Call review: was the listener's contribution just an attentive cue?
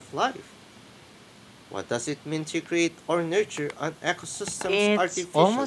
No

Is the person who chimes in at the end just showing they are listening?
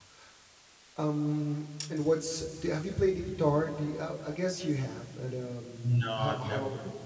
No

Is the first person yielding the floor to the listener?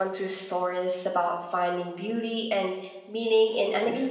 Yes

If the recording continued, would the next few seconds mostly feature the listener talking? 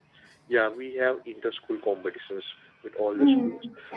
Yes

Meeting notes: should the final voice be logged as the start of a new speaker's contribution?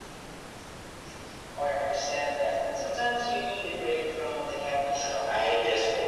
Yes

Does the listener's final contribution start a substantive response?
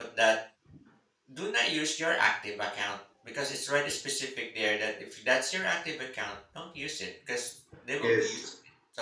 No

